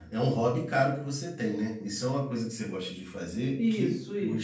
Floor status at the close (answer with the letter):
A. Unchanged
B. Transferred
B